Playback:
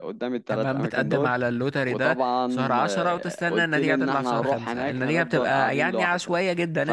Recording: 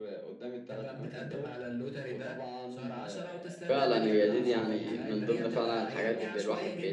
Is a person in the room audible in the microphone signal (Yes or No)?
Yes